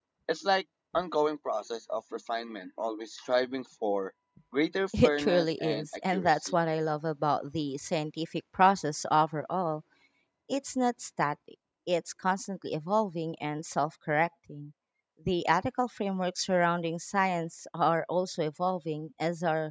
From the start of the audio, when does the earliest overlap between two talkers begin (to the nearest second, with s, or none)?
5 s